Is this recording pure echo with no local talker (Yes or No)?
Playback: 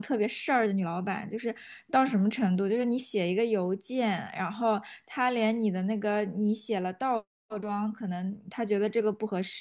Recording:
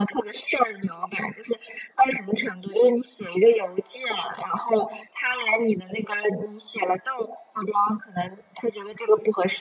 Yes